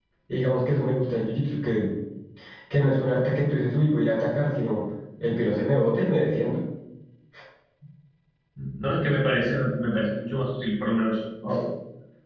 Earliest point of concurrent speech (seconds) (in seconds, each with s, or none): none